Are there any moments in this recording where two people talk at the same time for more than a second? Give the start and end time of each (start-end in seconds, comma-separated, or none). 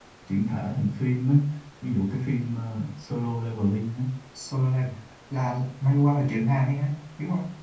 none